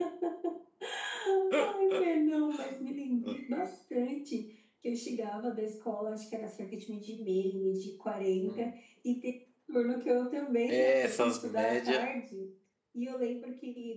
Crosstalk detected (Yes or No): Yes